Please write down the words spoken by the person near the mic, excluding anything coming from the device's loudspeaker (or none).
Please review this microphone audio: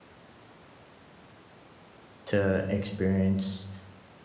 to experience,